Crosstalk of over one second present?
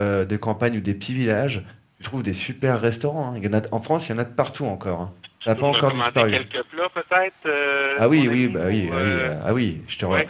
Yes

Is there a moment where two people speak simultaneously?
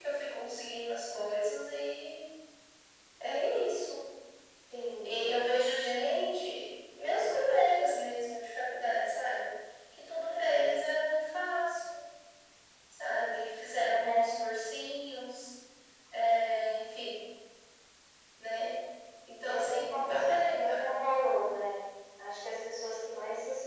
Yes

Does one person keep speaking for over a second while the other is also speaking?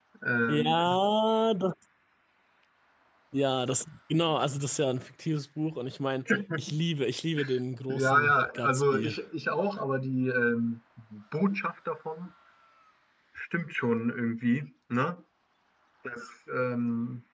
Yes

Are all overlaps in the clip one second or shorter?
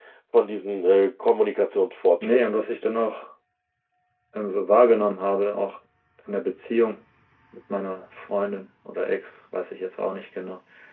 Yes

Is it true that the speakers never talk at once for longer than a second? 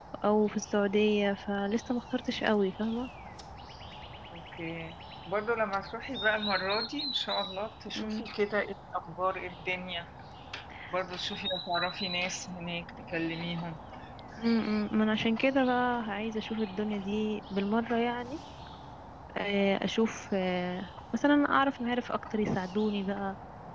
Yes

